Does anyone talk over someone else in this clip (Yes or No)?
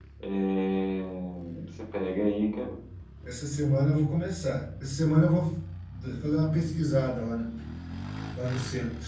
No